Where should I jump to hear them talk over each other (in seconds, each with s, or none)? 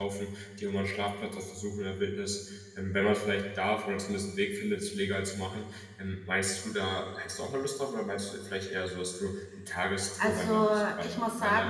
10.2 s